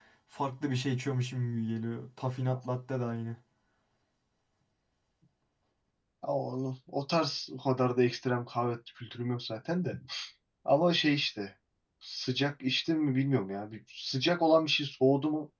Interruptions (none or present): none